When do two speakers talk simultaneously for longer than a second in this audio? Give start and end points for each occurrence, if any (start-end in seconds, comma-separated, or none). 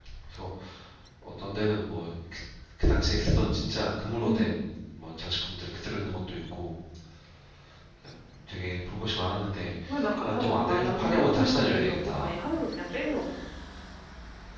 10.2-12.4